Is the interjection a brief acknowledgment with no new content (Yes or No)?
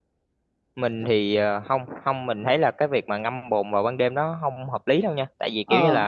Yes